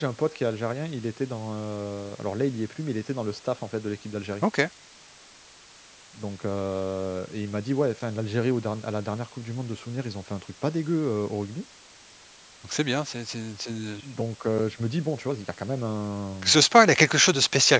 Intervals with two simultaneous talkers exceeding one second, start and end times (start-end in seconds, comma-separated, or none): none